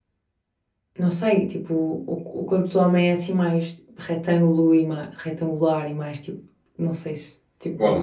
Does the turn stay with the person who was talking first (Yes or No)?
No